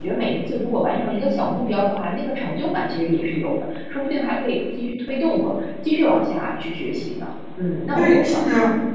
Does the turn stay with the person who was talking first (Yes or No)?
No